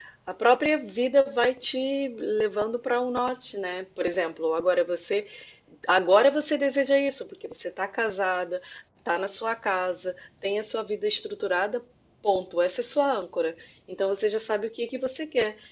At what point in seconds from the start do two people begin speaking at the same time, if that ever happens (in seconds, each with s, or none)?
none